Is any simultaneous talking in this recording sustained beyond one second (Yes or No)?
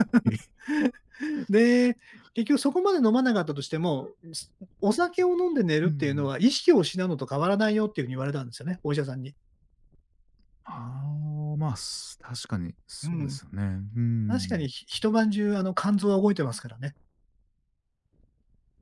No